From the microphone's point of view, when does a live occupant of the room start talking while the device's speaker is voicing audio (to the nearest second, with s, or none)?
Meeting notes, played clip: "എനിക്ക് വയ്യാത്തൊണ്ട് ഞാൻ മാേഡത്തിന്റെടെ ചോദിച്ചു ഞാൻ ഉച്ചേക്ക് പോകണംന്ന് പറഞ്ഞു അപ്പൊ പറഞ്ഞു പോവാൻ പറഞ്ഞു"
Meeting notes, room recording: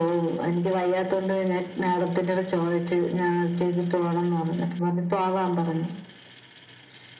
none